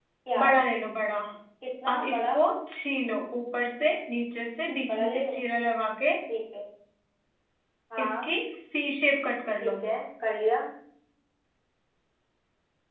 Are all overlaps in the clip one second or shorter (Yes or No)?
Yes